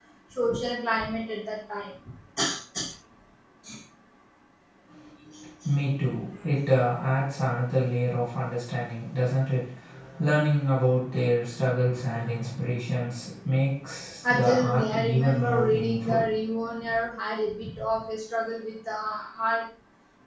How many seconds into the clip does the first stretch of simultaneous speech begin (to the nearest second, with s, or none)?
14 s